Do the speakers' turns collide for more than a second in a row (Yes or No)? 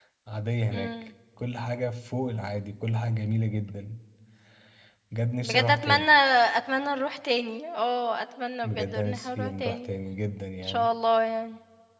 Yes